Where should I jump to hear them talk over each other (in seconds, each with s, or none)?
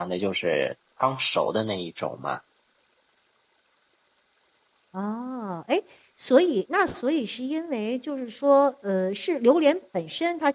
none